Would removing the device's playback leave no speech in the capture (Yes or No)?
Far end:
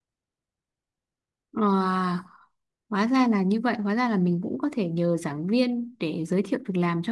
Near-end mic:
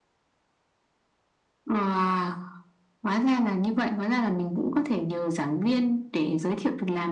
Yes